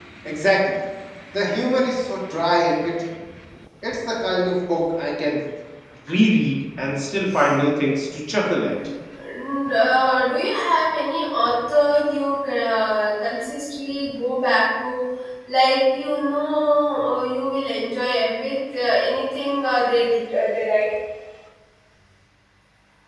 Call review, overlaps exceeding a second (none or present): none